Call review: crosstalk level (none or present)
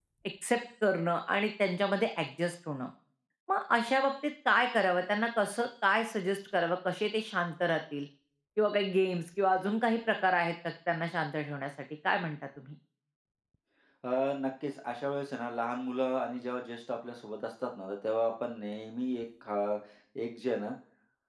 none